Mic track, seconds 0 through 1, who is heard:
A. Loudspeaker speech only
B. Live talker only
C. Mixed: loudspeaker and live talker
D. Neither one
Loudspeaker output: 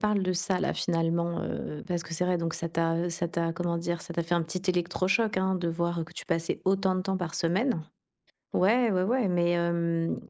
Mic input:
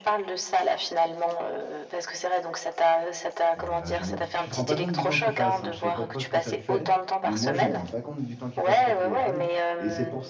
A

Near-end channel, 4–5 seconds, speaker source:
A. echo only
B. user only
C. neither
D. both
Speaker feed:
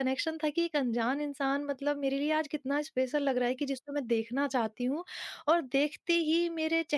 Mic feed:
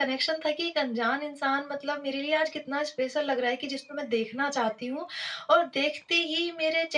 A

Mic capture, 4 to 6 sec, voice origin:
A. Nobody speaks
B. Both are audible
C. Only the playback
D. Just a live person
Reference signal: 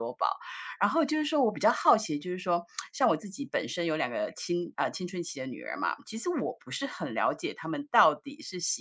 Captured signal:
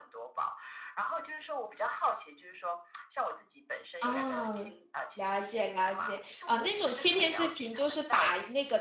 B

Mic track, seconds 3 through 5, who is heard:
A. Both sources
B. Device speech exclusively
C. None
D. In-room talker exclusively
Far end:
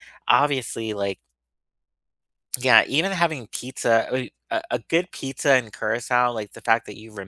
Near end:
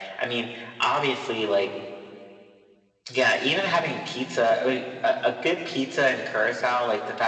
B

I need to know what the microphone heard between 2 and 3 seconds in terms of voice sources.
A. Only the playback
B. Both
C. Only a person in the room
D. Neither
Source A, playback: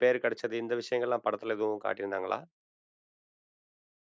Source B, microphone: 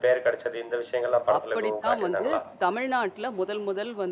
B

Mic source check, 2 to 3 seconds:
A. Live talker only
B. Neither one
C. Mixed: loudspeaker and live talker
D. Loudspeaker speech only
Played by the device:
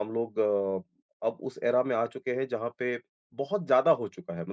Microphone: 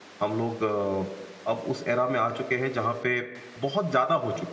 D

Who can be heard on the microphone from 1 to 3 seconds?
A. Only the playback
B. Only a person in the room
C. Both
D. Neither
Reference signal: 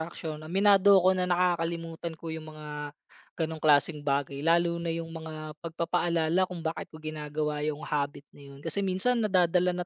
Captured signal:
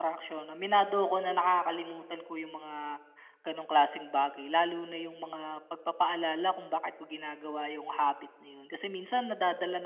A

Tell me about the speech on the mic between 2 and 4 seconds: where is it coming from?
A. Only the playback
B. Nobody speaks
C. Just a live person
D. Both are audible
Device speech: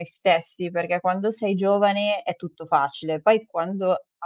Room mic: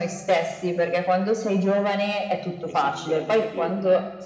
D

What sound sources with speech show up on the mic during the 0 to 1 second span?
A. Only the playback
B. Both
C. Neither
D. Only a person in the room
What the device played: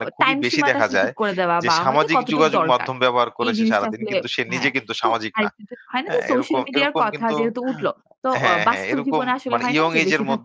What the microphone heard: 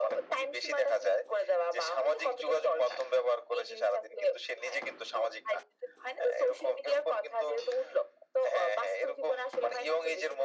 A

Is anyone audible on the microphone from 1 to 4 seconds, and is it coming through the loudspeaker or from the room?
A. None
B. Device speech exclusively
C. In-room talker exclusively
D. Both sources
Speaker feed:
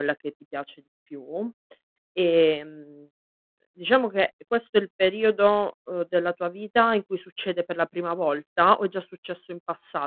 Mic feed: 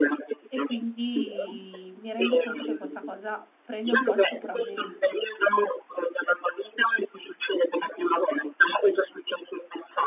D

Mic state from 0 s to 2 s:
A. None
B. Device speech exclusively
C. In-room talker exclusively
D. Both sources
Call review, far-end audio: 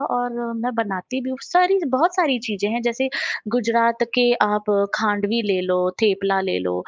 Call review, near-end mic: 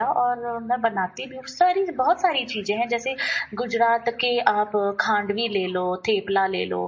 B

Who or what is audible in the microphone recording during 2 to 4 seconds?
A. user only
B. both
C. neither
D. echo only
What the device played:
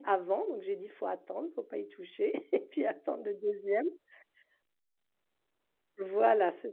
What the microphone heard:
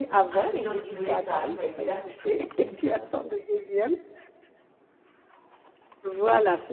B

